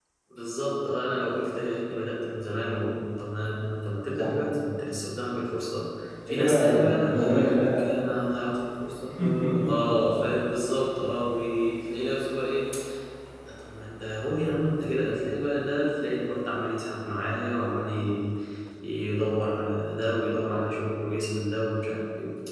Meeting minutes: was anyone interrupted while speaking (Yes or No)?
Yes